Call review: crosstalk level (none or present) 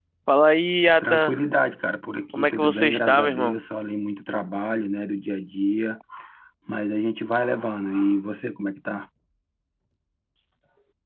present